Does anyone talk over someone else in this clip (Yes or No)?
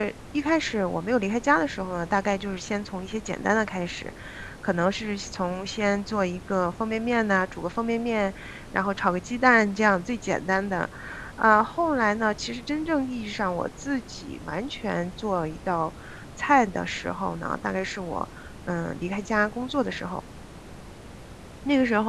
No